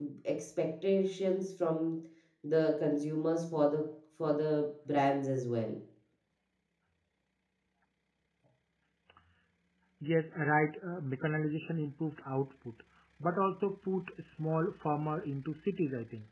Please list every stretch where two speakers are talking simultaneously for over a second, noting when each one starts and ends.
none

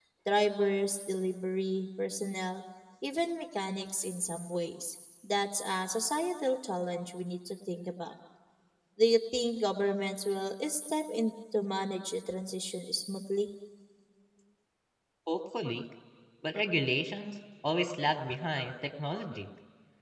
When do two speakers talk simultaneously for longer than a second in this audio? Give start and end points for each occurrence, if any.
none

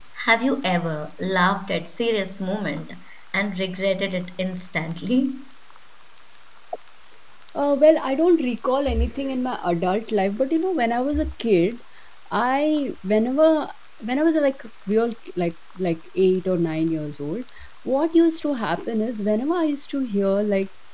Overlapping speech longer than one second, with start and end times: none

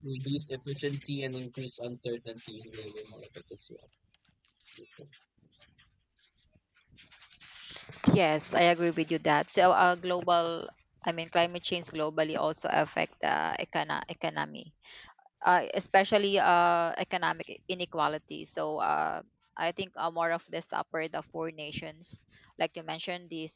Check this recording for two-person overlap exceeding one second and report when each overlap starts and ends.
none

